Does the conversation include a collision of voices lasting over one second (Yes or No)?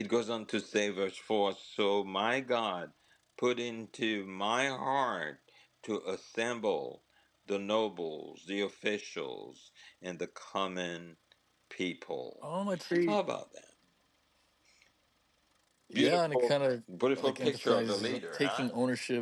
Yes